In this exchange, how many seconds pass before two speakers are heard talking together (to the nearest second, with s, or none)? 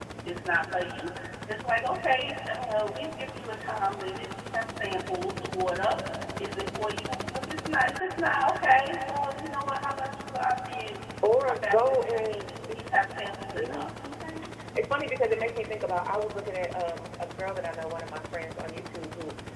11 s